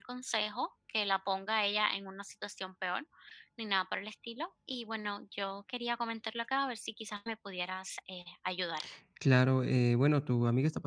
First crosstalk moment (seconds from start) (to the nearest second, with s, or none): none